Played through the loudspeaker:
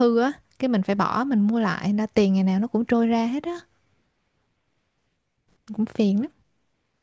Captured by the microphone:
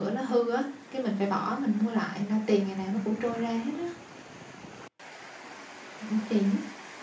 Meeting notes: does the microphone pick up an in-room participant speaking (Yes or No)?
No